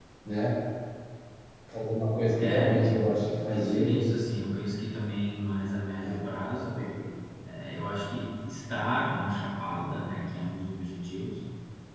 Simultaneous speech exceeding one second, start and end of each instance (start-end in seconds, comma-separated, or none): 2.4-4.0